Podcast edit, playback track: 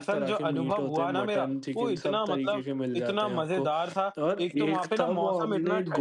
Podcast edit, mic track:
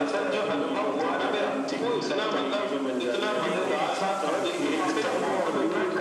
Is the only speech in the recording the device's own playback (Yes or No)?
No